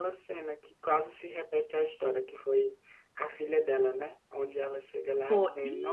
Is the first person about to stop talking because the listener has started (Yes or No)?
No